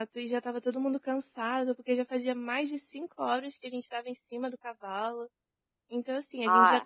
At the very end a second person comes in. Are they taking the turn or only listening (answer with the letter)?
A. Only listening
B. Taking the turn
B